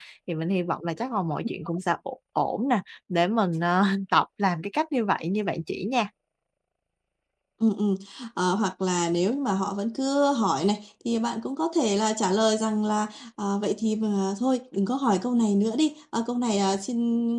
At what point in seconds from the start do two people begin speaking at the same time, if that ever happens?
none

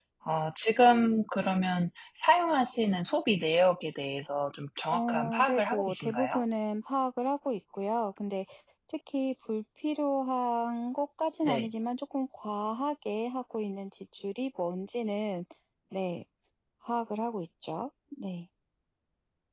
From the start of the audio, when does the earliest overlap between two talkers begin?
4.9 s

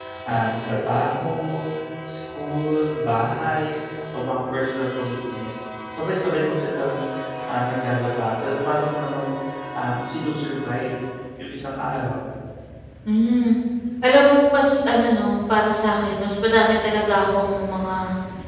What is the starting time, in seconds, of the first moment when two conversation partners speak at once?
none

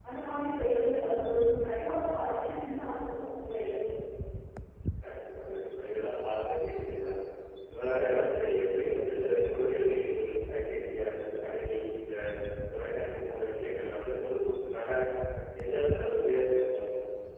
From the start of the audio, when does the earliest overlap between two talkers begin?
none

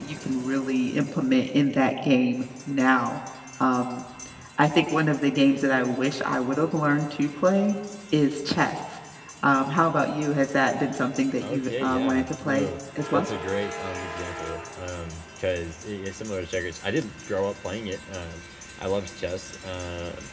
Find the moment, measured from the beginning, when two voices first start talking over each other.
11.4 s

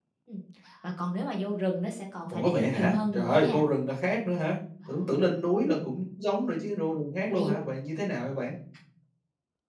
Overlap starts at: 2.3 s

